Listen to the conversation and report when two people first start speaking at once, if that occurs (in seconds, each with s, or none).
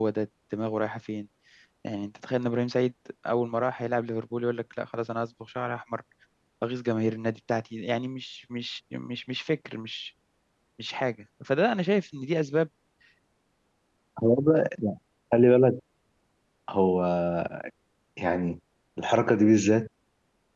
none